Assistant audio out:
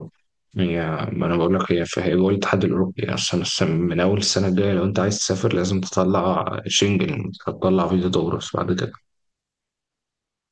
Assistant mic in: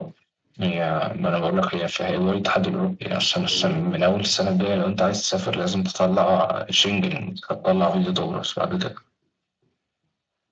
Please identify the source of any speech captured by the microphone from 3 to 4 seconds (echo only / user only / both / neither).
both